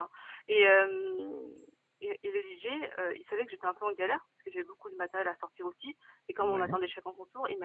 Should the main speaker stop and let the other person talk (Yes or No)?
No